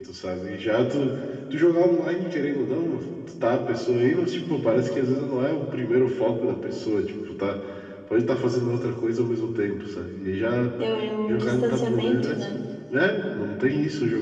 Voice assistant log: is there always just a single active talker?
No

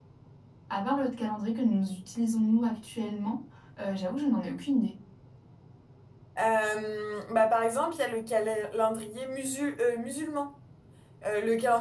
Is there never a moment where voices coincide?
Yes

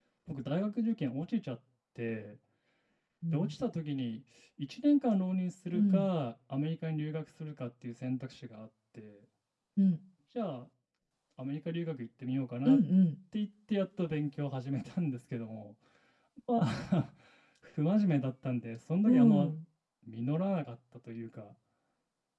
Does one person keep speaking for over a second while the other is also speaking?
No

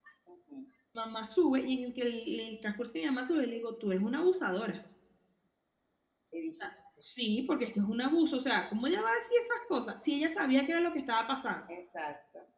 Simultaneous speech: No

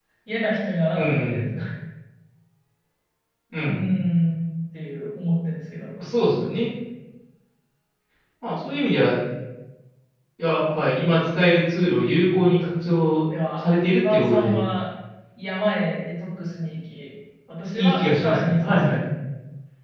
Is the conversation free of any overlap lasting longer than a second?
No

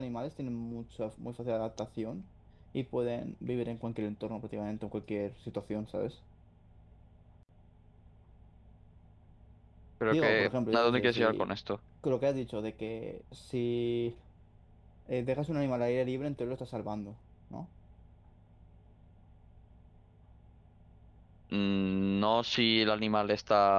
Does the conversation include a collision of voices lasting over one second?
Yes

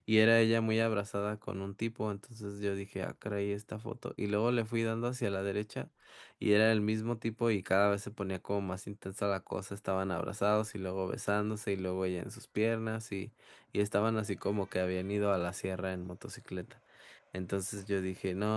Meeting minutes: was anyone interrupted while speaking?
No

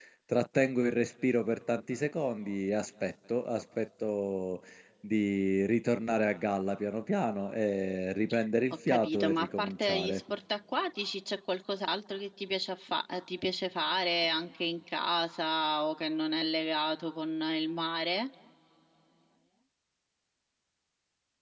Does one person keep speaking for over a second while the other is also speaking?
Yes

